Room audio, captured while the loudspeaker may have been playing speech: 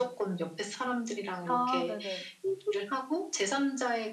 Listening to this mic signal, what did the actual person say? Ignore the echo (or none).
아. 네네.